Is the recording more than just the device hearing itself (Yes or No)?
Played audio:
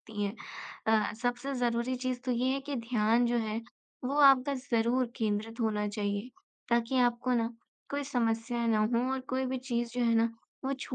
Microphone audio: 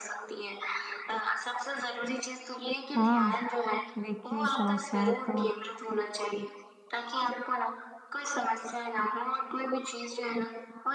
Yes